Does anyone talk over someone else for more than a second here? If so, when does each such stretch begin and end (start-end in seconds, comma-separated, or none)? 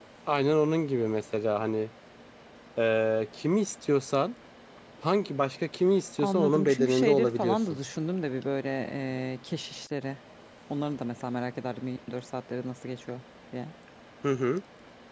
6.2-7.6